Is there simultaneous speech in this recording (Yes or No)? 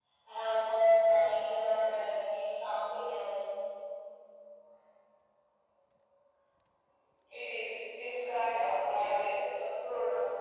No